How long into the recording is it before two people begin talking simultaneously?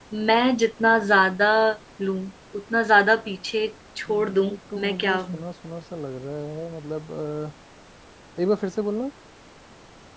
4 s

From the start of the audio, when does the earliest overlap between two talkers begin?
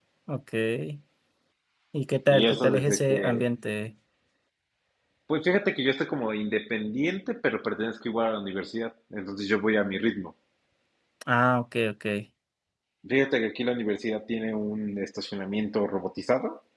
2 s

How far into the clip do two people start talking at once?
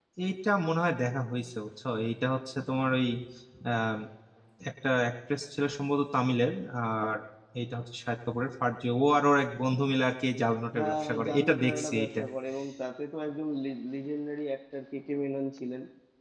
11 s

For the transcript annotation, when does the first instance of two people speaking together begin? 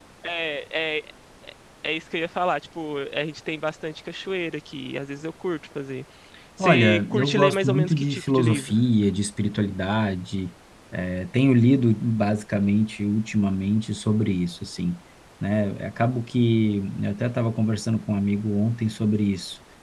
7 s

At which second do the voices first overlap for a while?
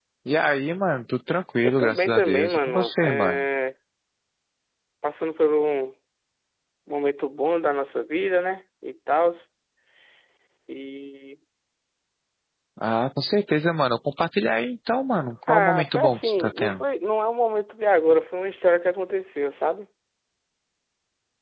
2 s

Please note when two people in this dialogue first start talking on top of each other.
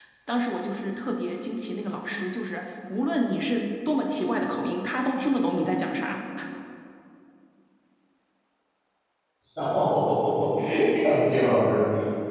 none

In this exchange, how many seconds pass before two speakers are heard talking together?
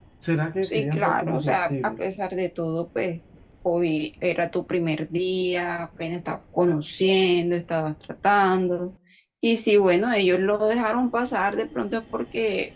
1 s

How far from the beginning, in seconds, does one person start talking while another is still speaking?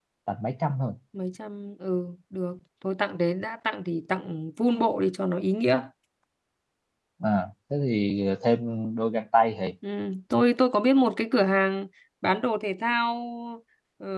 none

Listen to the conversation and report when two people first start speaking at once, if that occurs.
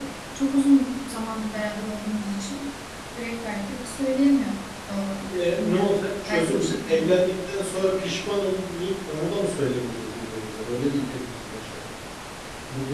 5 s

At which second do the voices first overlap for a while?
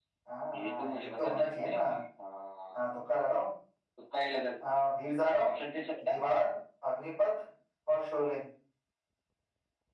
1 s

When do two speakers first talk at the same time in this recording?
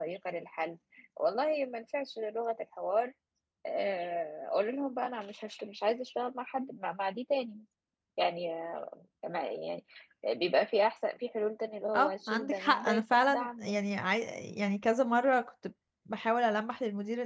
12 s

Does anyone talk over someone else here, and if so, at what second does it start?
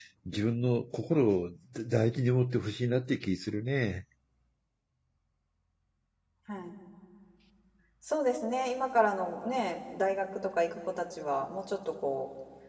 none

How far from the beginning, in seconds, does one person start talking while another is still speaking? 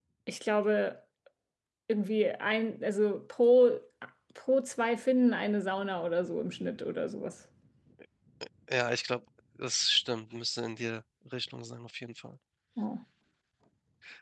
none

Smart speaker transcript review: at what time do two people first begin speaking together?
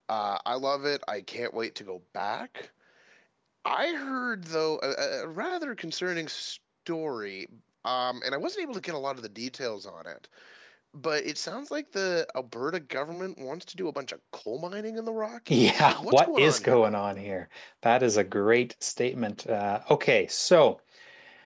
15 s

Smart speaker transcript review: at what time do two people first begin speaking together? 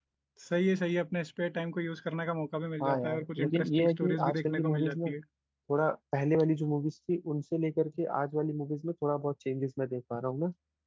3 s

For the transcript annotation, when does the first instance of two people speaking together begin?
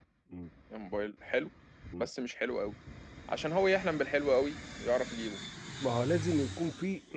none

